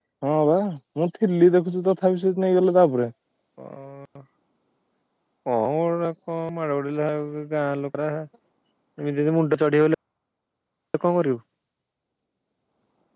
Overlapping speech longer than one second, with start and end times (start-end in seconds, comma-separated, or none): none